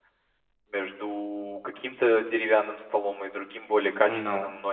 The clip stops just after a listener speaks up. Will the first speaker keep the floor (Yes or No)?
Yes